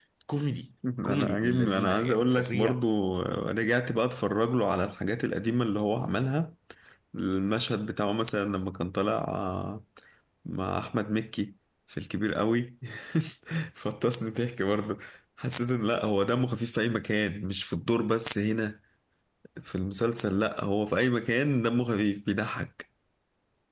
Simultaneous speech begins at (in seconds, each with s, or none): 1.0 s